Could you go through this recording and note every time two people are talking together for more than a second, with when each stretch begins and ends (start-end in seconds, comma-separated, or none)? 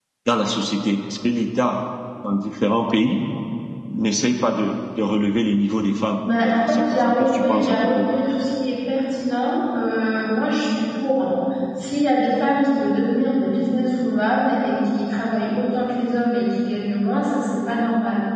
6.4-8.1